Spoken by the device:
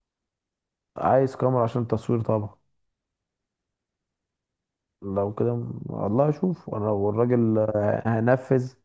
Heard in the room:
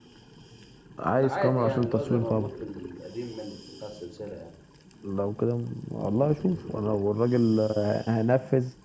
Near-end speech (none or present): present